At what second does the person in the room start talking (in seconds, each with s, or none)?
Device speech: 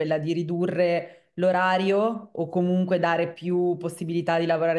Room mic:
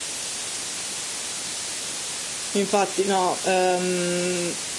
2.5 s